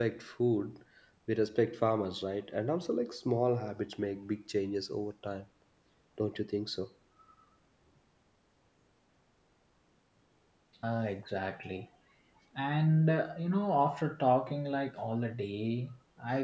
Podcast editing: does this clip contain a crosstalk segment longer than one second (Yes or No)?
No